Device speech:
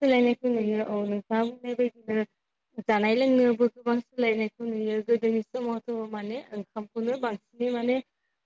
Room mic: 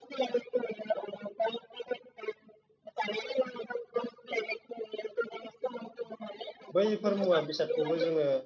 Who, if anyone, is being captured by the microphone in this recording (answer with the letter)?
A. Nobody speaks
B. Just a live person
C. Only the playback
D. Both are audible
D